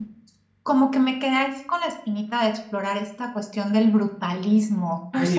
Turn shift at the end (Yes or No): Yes